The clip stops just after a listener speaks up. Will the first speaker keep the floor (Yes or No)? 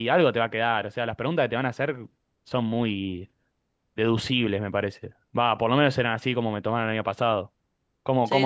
No